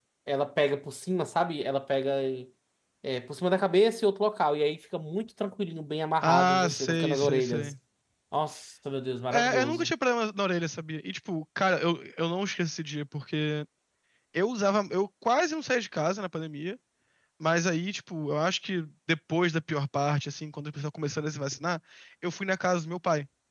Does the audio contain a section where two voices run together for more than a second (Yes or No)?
Yes